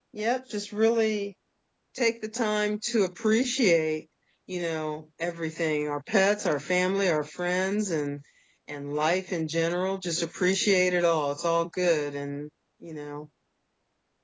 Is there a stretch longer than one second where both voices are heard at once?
No

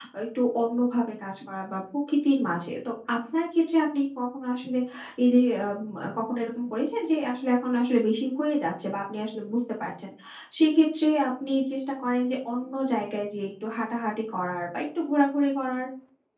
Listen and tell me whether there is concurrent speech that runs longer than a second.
No

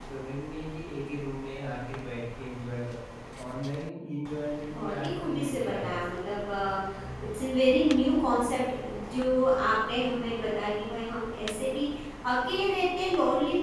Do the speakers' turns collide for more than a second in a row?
Yes, from 4.7 s

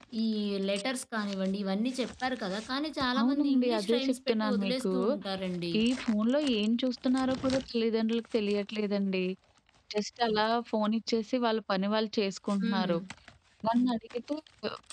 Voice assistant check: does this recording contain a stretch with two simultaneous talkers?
Yes, from 3.2 s

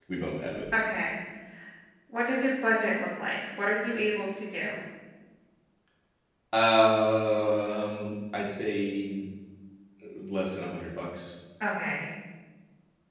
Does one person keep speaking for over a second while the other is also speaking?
No

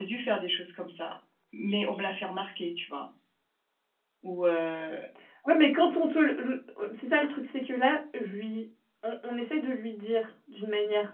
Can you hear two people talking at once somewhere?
No

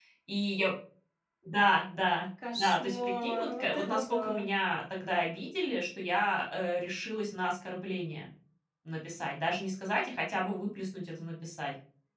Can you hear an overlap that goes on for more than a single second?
Yes, from 2.4 s

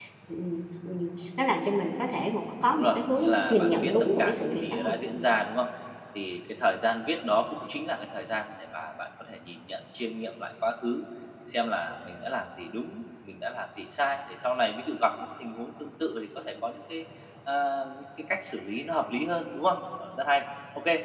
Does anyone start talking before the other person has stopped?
Yes, from 2.7 s

